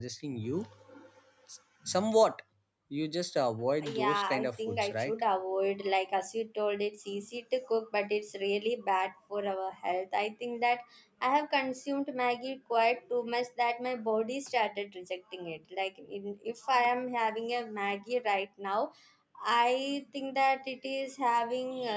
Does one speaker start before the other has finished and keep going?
Yes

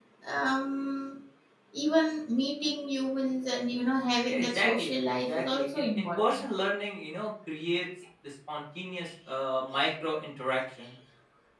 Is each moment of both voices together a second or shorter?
No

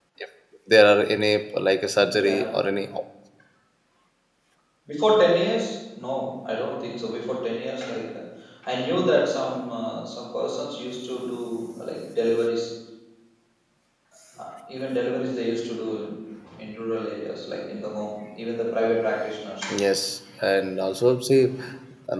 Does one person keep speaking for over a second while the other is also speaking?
No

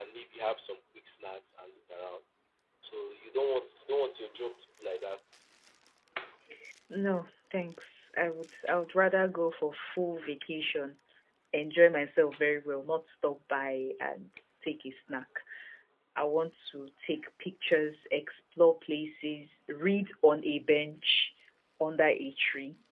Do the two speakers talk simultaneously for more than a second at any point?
No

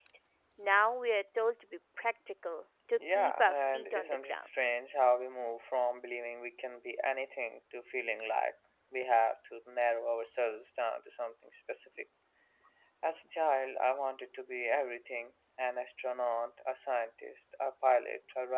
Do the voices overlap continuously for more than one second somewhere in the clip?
Yes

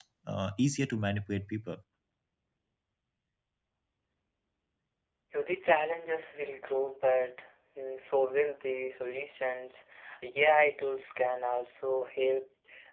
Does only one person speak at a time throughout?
Yes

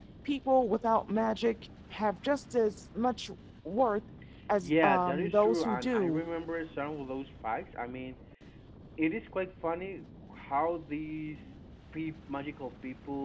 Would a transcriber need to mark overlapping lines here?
Yes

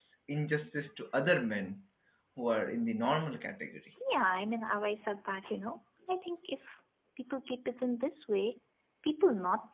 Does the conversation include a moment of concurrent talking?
No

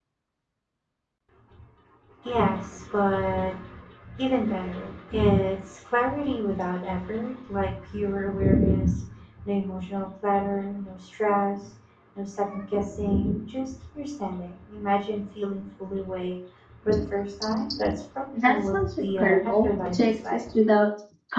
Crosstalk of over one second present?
Yes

